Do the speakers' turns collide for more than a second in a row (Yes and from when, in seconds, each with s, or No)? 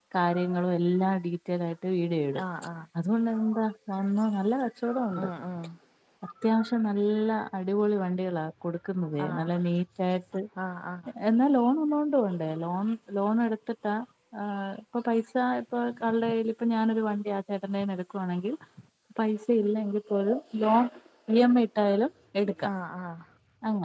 No